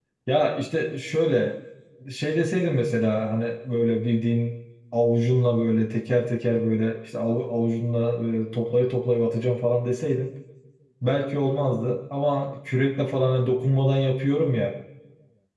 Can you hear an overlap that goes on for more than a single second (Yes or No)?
No